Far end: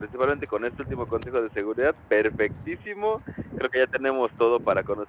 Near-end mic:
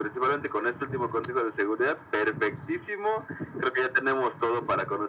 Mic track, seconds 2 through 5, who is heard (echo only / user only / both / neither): echo only